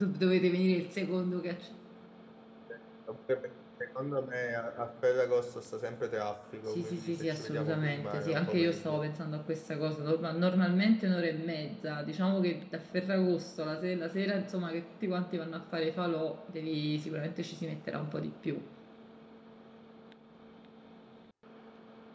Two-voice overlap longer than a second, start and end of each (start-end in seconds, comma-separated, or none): 6.7-9.0